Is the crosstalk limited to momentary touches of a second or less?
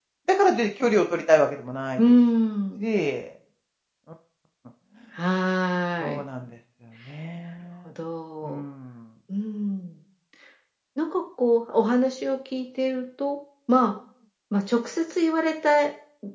Yes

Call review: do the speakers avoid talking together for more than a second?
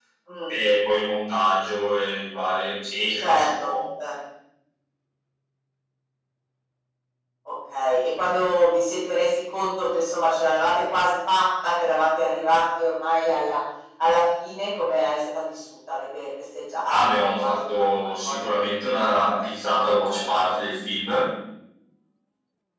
No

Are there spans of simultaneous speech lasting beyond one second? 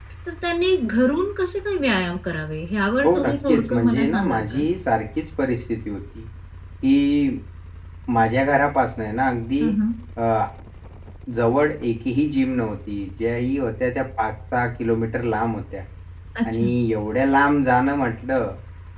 Yes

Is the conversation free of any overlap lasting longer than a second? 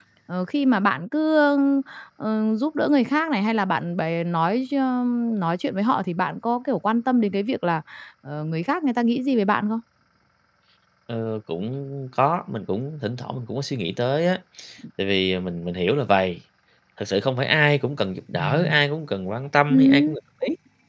Yes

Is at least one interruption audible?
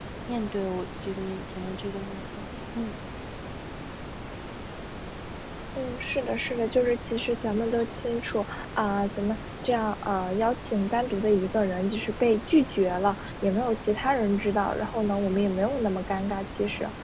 No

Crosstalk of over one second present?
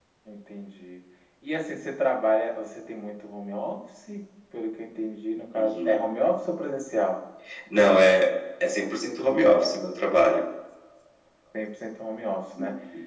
No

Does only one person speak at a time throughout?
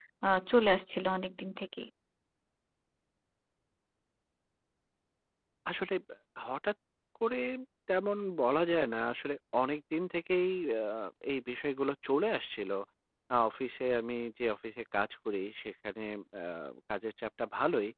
Yes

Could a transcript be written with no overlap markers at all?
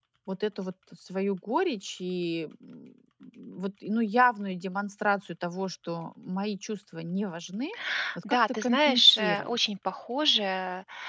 No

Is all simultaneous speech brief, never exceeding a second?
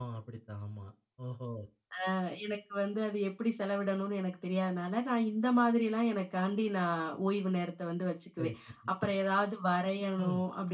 Yes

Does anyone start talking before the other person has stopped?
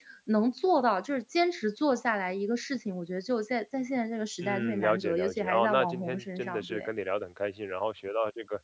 Yes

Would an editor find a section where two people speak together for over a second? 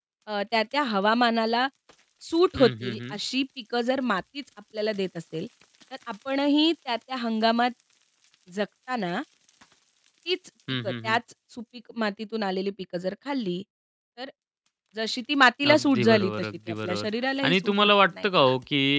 Yes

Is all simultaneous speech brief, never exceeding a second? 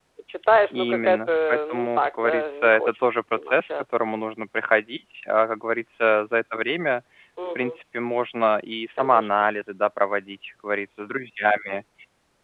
No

